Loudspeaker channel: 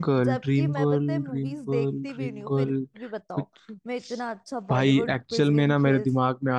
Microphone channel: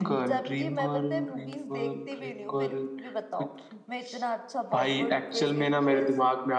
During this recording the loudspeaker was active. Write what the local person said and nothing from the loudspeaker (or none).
none